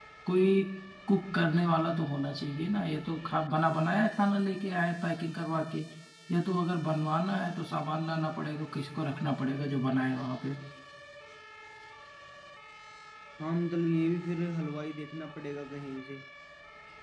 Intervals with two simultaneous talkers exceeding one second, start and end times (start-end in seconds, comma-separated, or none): none